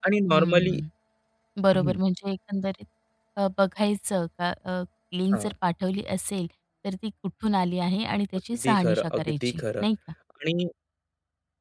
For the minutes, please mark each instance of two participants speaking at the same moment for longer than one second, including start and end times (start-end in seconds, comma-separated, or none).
8.6-9.8